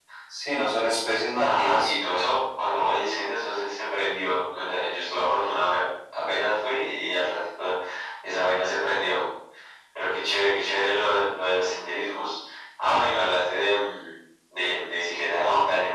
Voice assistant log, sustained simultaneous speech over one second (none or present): none